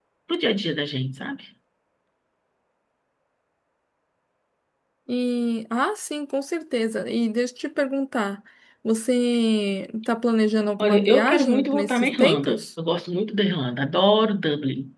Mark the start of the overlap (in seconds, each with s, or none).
10.8 s